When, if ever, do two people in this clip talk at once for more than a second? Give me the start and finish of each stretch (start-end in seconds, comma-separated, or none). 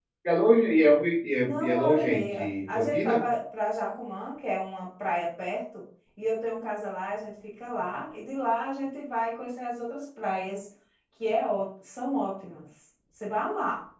1.4-3.1